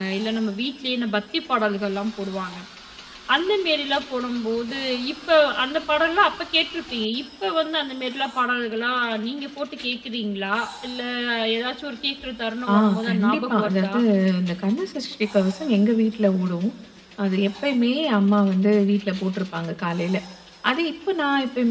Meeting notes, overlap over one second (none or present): present